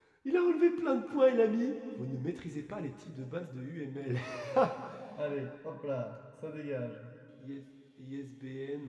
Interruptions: none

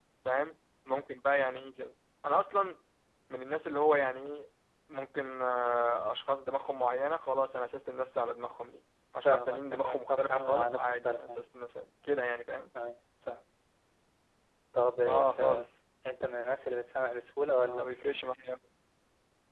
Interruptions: present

